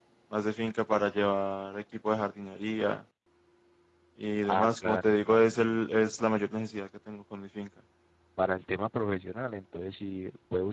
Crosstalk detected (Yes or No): Yes